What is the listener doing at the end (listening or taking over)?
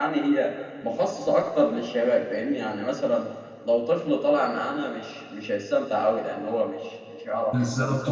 taking over